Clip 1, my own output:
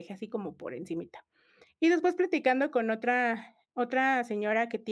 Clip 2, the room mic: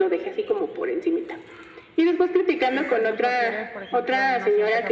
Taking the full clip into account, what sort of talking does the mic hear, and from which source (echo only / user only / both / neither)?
both